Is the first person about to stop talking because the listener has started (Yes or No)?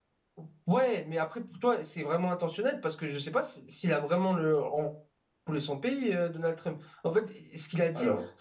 No